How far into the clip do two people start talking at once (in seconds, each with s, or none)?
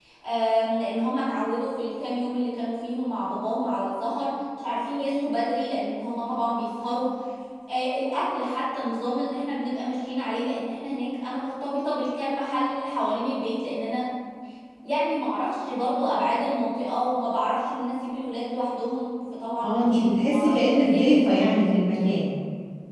19.6 s